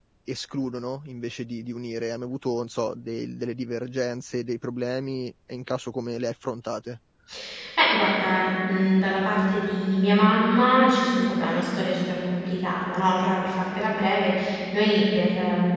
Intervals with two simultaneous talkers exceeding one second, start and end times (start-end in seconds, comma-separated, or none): none